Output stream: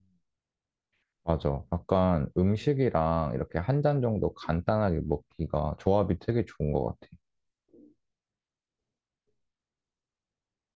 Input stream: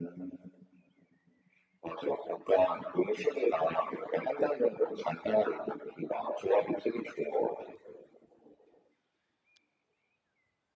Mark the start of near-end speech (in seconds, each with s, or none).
none